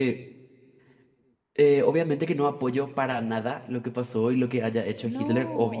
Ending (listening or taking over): taking over